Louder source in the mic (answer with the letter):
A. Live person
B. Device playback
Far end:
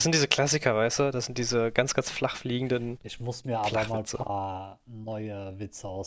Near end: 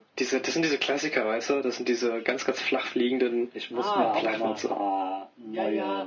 B